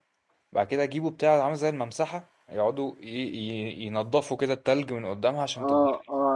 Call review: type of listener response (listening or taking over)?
taking over